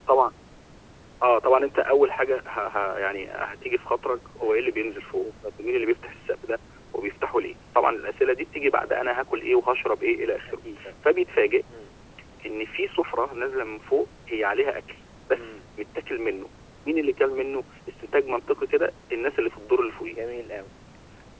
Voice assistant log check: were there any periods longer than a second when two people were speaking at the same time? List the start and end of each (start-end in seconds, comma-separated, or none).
none